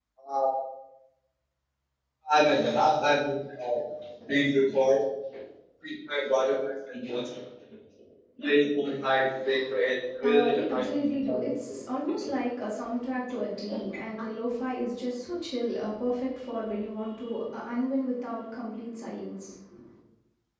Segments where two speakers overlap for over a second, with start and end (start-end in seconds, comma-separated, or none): 10.2-11.5